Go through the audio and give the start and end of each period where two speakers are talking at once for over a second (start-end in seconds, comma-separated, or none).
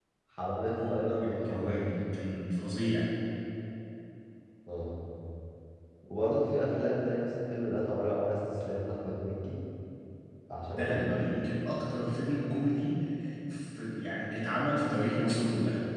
0.8-2.0